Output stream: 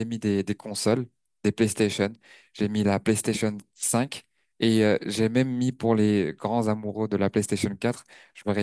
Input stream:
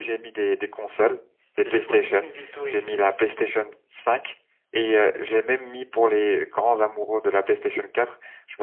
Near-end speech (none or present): present